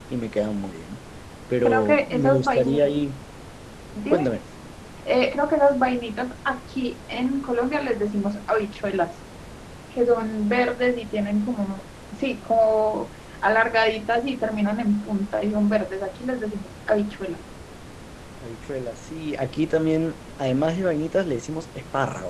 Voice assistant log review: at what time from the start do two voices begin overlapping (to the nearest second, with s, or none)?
2 s